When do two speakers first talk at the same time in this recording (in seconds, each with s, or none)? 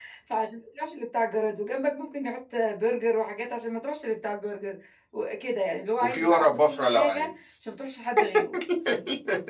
6.0 s